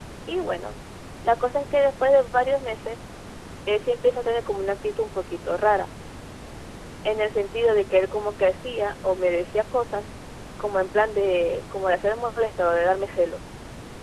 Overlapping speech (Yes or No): No